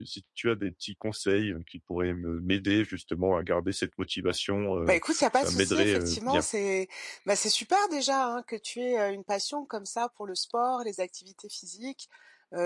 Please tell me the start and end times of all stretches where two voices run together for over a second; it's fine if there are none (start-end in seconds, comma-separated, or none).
4.9-6.4